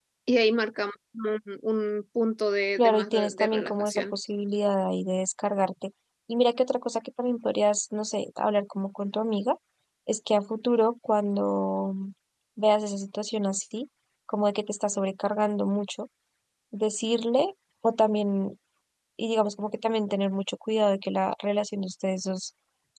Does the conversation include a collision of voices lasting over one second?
Yes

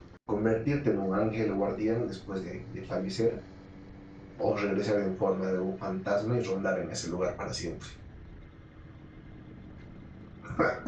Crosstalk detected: No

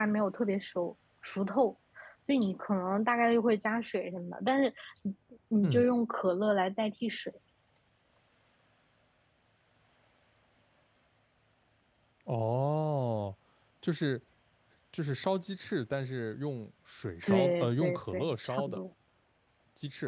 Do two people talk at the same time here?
Yes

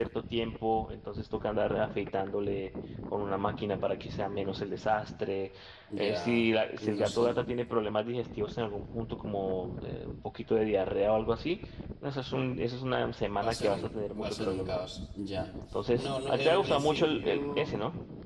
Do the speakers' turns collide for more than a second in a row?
Yes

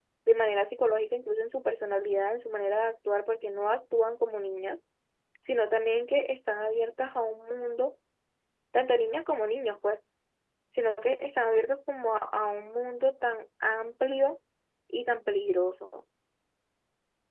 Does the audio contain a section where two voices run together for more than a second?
No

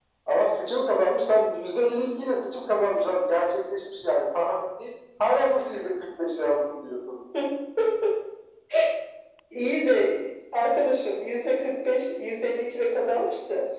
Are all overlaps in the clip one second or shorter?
Yes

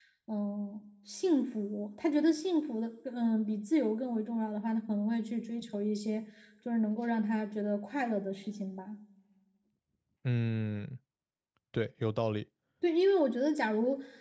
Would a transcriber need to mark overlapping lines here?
No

